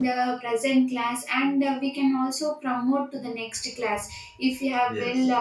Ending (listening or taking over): listening